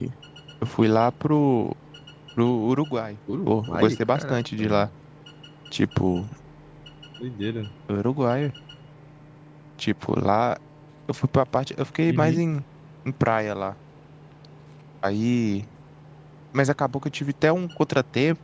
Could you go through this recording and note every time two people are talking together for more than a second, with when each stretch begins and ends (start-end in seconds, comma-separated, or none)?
3.5-4.9